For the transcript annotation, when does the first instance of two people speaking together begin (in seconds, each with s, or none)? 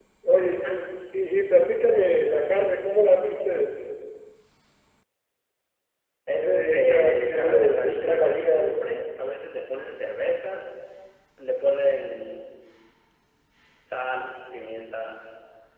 6.4 s